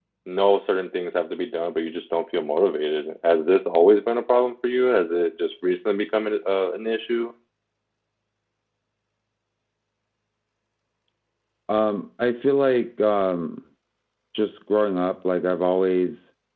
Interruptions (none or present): none